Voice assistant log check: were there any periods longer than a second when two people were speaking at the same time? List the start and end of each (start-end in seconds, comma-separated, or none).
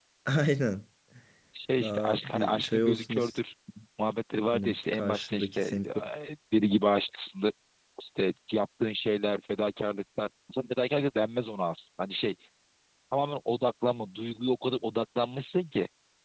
1.8-3.4, 4.5-5.8